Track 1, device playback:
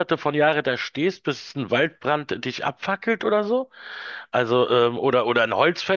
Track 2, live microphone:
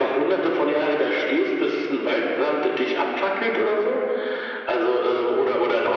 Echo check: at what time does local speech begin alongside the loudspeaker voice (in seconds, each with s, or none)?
none